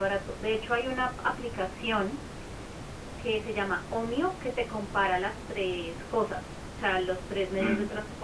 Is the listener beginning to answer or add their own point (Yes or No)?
No